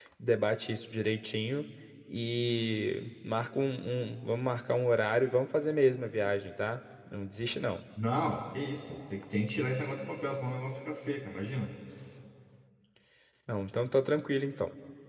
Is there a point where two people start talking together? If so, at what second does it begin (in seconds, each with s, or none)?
none